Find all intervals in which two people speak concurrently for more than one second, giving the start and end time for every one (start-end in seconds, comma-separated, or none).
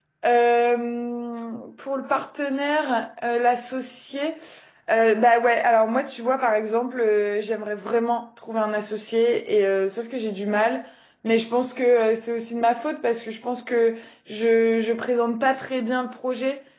none